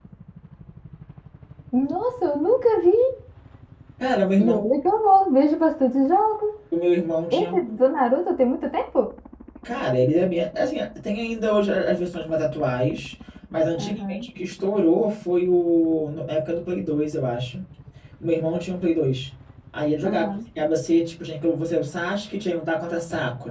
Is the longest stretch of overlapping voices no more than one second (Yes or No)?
Yes